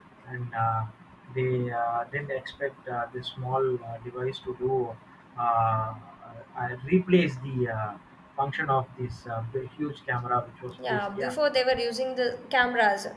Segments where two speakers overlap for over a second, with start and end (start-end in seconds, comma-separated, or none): none